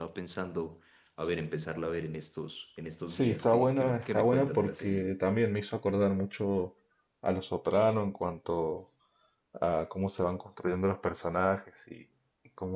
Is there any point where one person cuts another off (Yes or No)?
Yes